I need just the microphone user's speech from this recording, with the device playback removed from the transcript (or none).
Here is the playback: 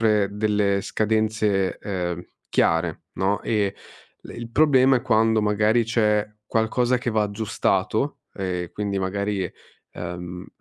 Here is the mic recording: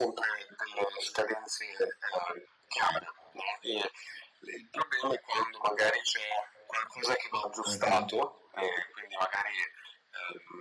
mh-mh.